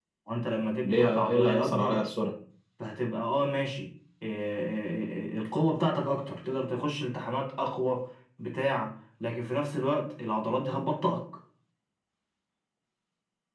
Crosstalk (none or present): present